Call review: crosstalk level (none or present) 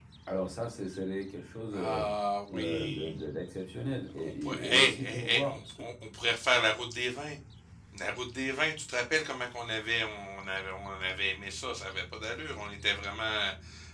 present